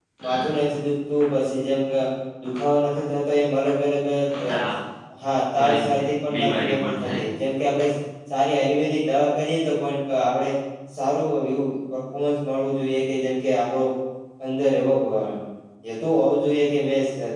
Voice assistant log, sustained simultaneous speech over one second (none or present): present